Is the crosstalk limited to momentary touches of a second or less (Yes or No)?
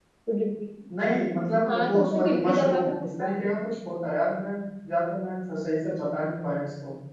No